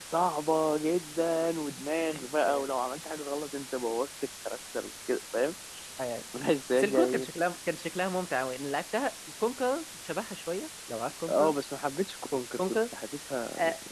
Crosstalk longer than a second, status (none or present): none